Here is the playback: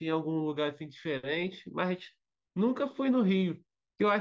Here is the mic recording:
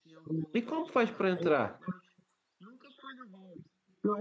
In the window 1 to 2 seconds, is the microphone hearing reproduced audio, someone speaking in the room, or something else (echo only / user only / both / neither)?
both